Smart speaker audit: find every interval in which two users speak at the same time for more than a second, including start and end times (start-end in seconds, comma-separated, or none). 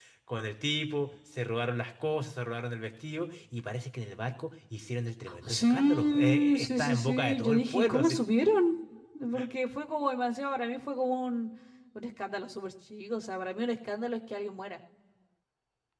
5.5-8.2